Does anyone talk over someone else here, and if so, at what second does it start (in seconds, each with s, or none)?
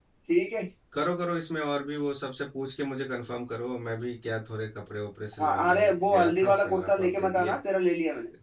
5.3 s